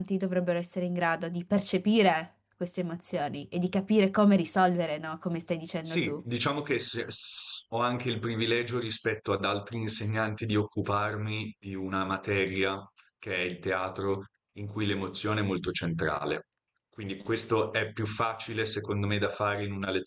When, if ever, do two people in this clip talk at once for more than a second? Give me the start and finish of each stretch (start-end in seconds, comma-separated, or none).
none